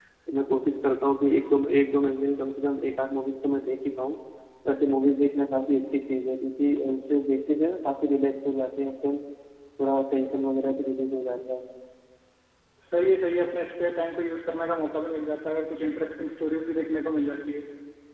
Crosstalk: none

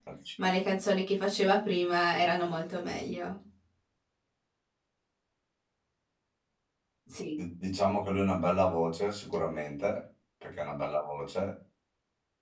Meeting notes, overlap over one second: none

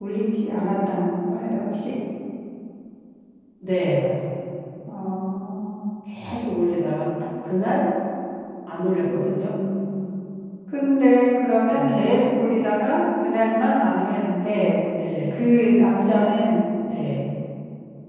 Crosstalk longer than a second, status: none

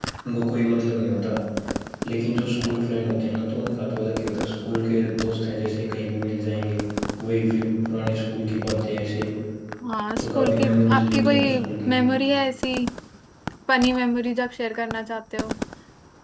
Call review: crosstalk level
present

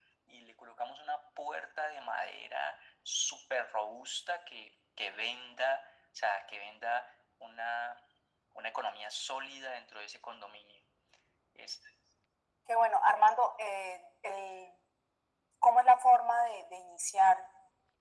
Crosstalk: none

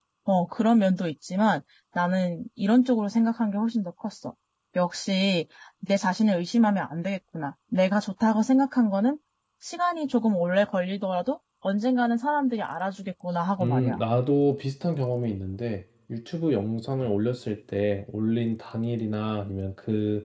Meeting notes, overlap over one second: none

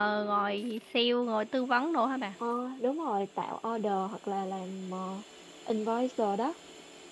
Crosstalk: none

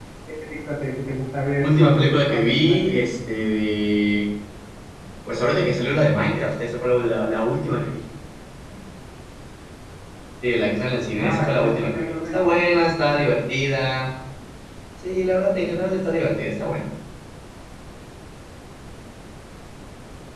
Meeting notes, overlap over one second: present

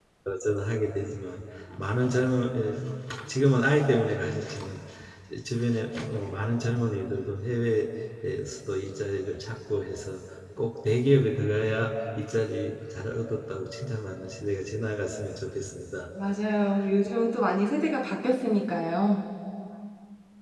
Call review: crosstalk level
none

